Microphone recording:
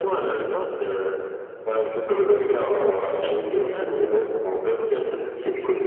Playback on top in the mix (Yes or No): Yes